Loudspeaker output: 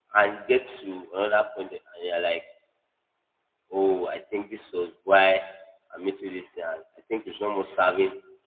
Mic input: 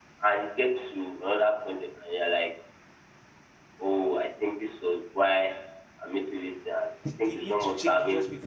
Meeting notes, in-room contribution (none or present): present